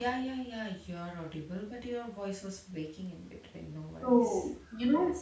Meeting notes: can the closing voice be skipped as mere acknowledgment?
No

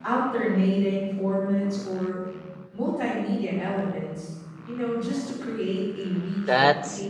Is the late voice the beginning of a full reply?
Yes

